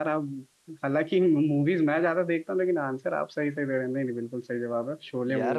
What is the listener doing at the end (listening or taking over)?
taking over